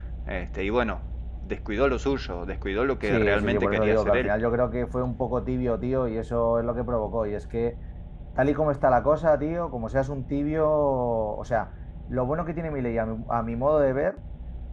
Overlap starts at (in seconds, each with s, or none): 3.1 s